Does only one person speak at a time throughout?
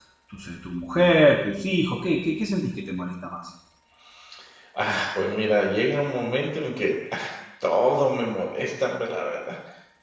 Yes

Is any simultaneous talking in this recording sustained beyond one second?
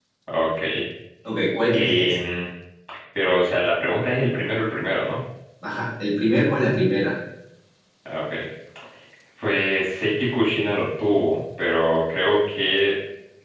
No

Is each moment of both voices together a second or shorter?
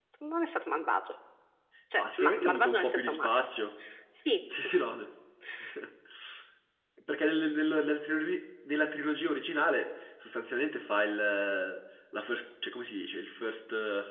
No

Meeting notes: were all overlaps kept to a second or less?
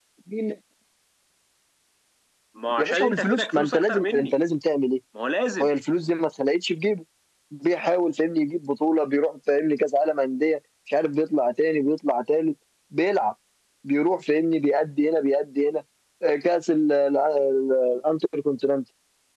No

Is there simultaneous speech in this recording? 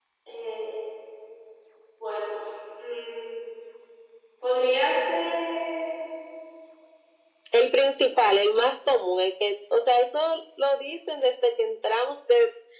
No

